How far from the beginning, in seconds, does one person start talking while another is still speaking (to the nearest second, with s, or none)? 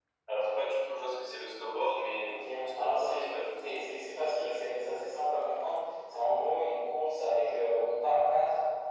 2 s